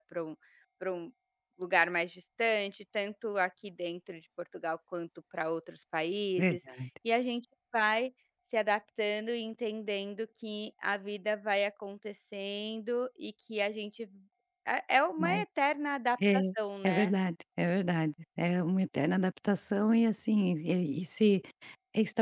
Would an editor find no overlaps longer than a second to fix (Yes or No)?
Yes